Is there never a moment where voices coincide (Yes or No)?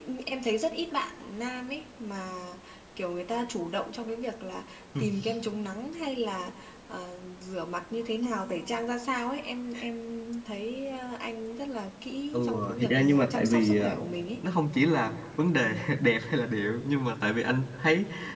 No